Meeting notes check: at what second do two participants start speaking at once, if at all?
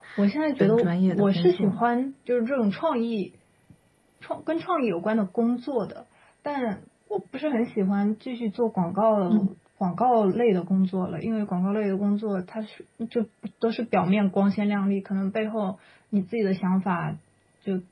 1 s

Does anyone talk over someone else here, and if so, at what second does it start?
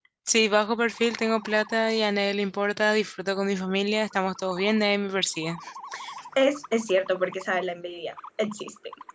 none

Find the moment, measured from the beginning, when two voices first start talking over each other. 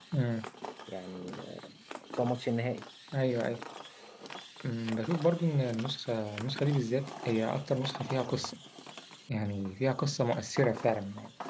none

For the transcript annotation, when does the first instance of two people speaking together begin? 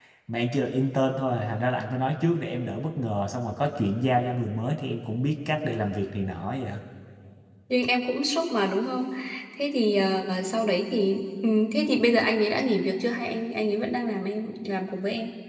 none

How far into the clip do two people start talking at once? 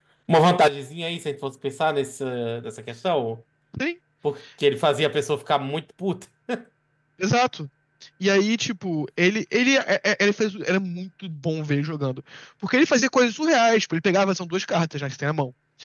none

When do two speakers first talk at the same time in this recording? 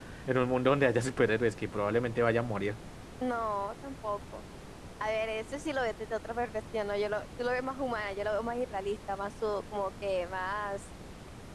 none

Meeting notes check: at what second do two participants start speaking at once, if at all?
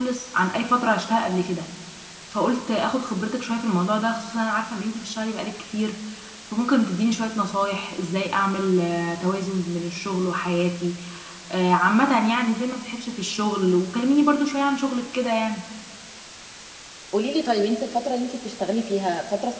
none

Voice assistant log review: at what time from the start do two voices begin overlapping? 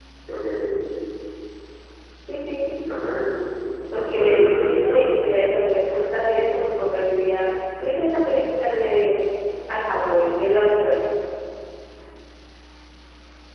4 s

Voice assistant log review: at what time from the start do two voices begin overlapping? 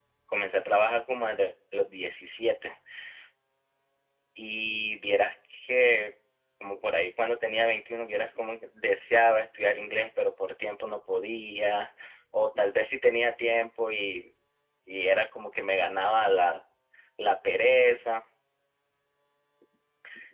none

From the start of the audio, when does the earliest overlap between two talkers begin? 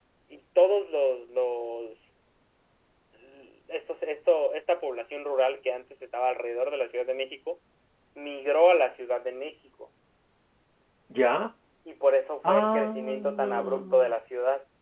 12 s

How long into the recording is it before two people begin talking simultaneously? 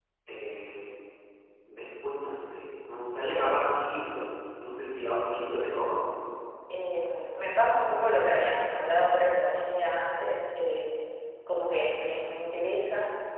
none

